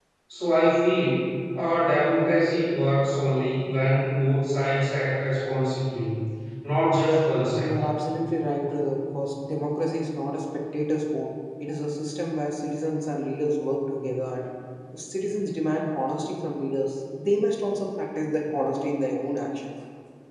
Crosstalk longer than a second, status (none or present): none